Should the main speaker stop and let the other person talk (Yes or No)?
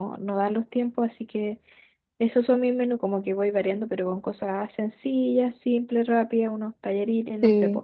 Yes